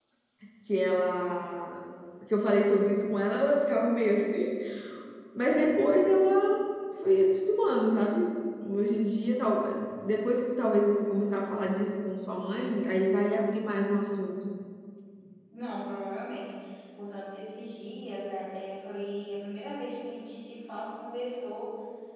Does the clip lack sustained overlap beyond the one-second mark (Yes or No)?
Yes